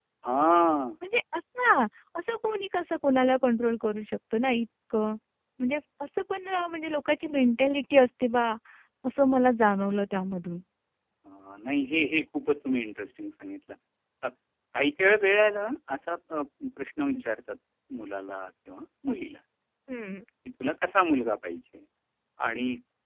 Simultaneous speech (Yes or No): No